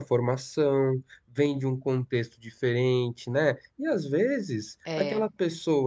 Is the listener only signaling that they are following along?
Yes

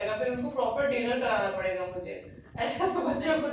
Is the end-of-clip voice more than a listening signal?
No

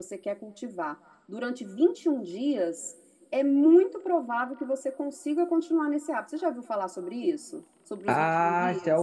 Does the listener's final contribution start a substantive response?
Yes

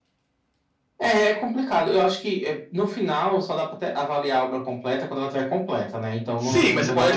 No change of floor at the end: No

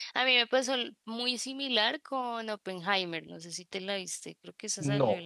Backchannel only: No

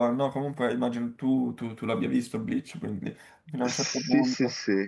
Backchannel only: No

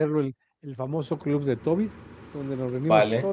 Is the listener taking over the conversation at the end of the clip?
No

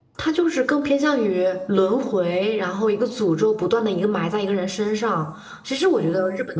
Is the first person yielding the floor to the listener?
No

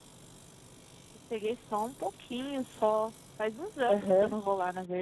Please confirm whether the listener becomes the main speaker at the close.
No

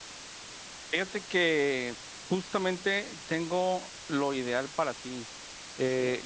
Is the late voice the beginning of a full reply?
No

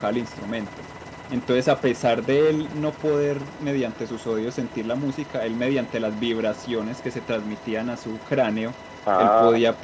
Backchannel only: Yes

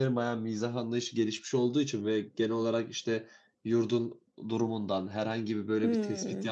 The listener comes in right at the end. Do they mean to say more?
No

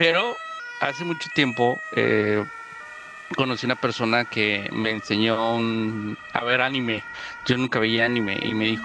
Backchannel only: Yes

